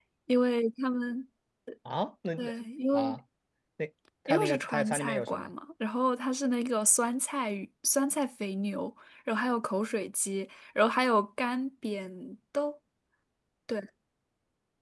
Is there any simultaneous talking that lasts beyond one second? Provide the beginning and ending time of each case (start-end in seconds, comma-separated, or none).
4.3-5.5